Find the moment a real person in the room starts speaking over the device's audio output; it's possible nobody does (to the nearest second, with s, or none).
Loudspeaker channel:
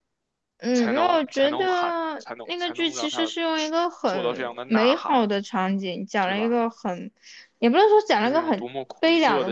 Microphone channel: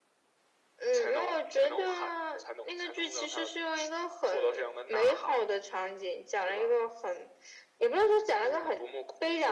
none